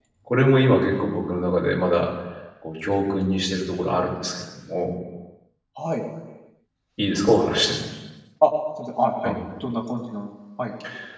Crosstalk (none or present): none